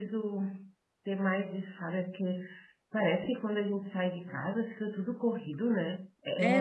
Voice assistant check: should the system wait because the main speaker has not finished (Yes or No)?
No